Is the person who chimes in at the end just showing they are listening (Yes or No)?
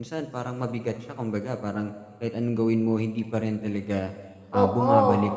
No